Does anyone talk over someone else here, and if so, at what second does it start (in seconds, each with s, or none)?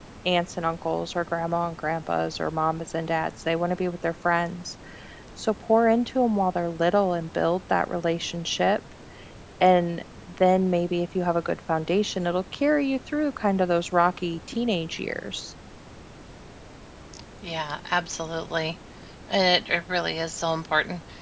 none